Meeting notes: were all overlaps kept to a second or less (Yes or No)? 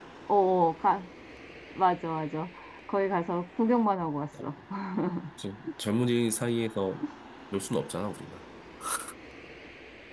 Yes